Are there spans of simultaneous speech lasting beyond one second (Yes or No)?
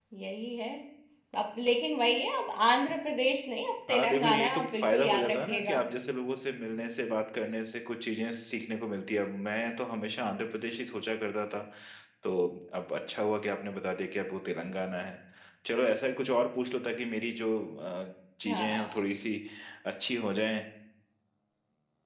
Yes